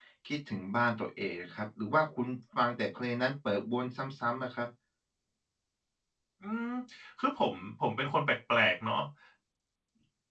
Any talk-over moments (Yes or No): No